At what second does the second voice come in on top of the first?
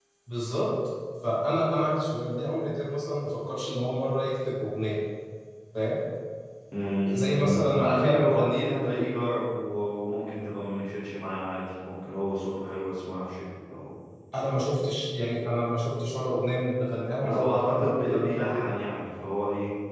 7.1 s

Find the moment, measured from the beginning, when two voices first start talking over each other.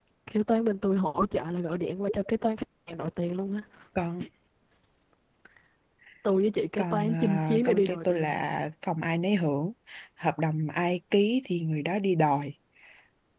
6.8 s

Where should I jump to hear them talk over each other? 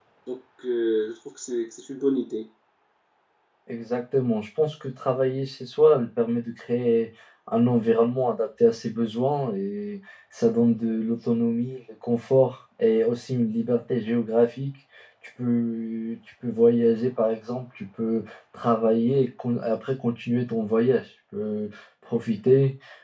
none

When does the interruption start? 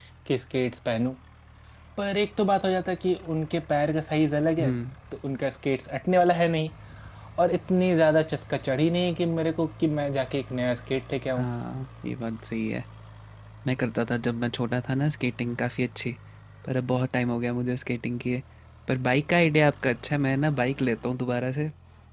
none

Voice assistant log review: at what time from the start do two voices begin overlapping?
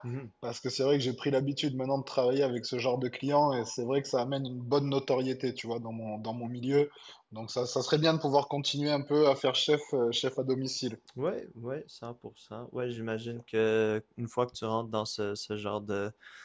none

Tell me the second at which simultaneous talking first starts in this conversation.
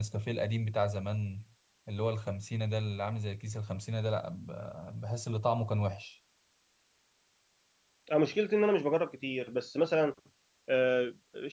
none

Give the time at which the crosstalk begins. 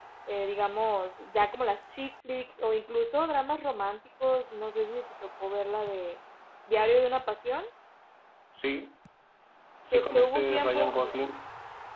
9.9 s

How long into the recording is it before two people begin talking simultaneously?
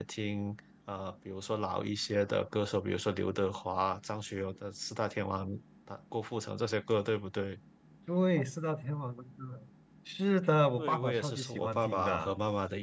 10.8 s

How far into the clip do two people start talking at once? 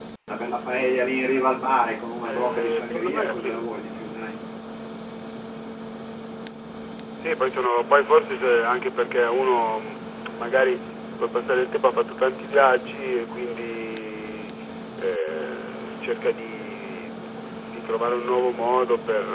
2.2 s

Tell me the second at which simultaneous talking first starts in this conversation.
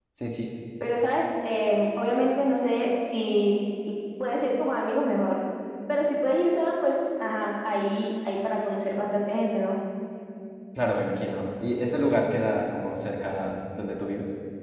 none

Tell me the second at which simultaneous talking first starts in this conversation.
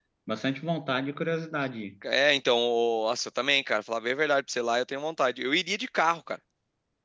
none

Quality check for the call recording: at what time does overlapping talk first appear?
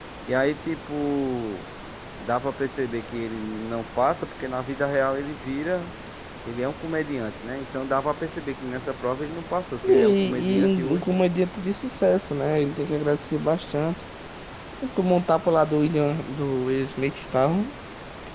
9.8 s

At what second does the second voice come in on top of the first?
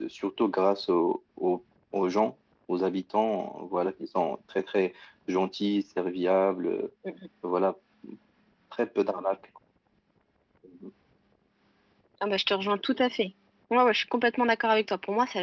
none

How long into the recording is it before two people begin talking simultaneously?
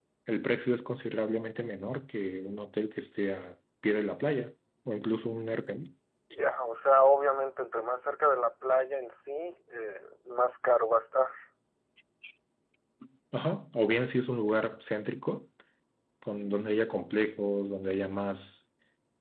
none

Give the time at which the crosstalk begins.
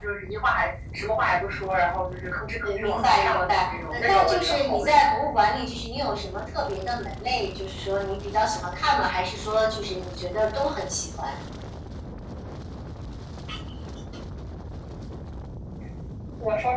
2.6 s

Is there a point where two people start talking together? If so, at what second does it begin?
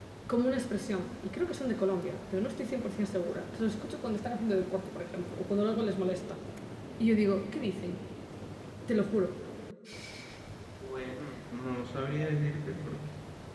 none

